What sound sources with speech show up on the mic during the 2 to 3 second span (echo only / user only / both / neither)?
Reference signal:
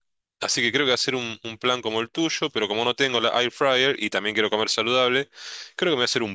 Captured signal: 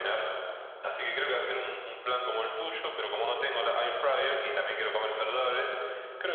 echo only